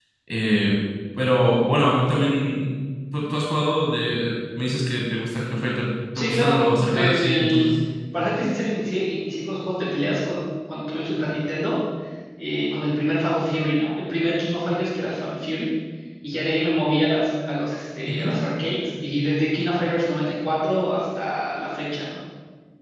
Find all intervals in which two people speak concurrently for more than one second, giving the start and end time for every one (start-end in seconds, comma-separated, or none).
6.2-7.7